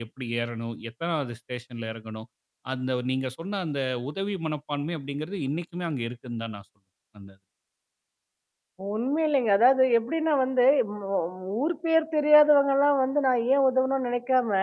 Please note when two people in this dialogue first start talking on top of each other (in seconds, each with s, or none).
none